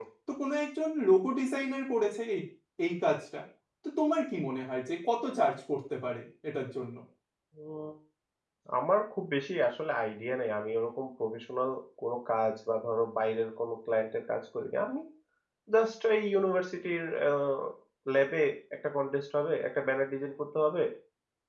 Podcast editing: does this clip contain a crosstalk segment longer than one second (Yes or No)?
No